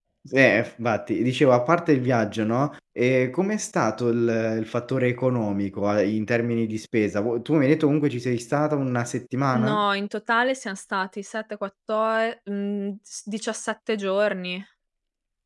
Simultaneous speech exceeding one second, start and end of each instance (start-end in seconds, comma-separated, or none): none